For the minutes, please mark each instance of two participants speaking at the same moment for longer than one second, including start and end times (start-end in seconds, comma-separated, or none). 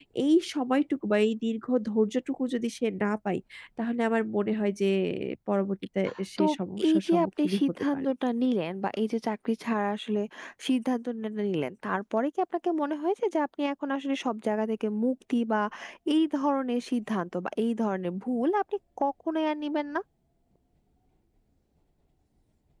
6.9-8.1